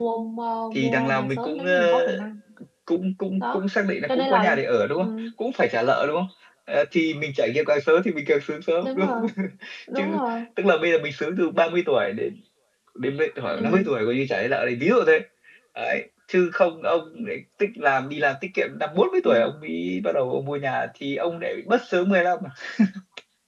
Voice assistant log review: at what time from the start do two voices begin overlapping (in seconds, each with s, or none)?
0.7 s